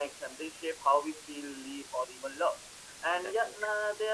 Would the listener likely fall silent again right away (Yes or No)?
Yes